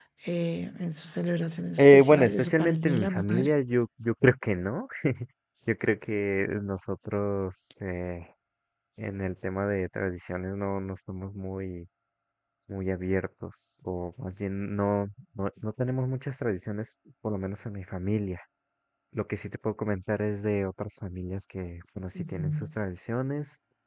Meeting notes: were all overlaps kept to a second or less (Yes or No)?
No